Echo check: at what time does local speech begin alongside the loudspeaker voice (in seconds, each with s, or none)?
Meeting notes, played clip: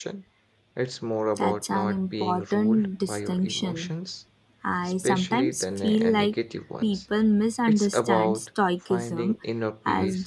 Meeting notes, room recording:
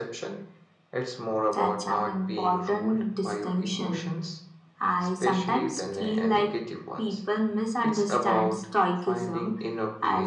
none